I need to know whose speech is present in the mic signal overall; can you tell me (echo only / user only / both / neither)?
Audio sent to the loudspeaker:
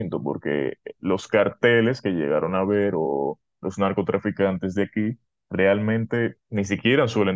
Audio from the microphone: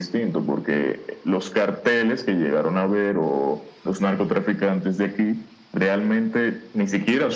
echo only